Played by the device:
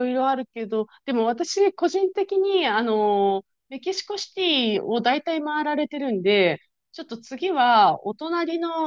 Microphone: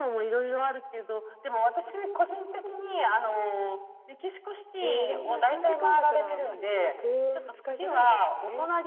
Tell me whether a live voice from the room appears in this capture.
Yes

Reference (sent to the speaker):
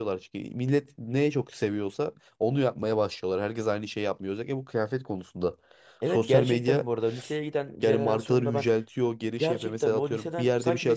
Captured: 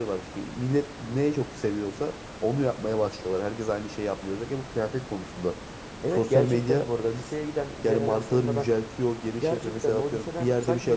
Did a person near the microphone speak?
No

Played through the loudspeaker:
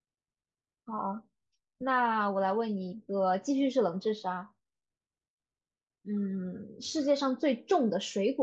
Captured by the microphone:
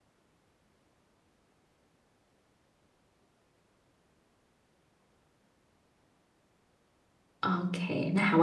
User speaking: Yes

